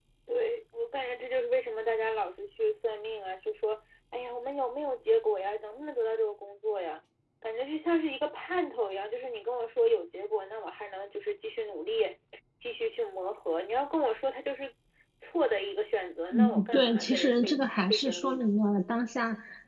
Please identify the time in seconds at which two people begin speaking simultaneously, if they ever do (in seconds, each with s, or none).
16.3 s